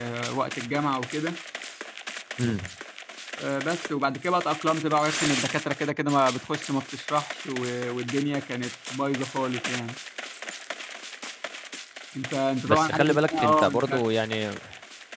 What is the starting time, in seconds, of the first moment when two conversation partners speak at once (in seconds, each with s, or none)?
12.7 s